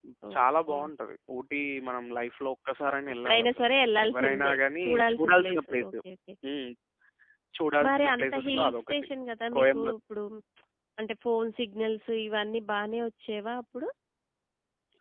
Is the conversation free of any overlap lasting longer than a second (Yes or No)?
No